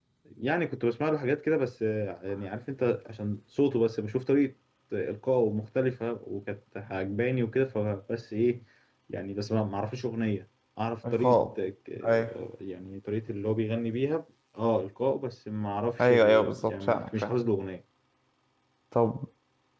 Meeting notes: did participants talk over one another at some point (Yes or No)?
Yes